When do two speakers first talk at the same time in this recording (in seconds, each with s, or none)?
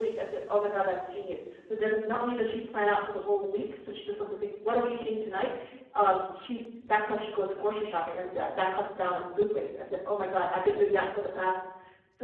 none